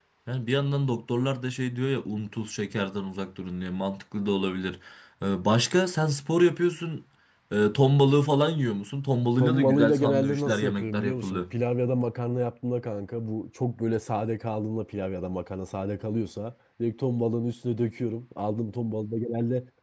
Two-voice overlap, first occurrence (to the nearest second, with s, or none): 9 s